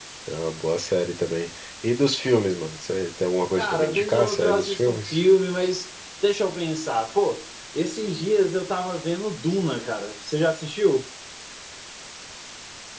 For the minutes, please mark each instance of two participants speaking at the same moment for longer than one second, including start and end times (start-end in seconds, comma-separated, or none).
3.6-5.2